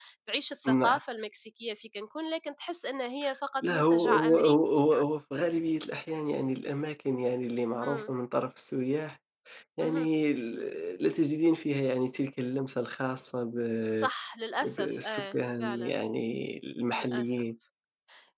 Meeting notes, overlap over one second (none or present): present